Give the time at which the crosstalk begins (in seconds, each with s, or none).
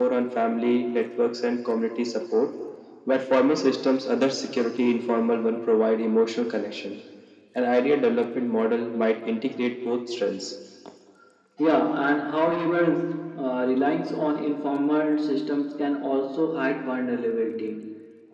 none